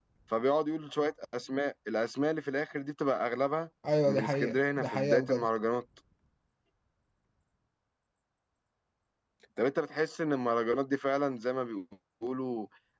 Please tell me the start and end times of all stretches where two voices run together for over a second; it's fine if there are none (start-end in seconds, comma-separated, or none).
4.1-5.5